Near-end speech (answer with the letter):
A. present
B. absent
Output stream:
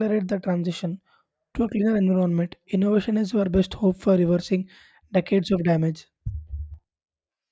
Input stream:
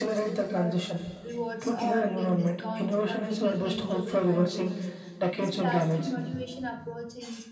A